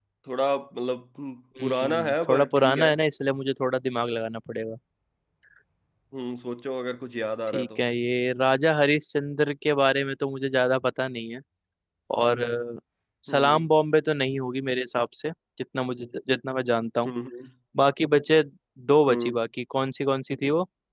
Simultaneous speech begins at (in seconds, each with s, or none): 1.6 s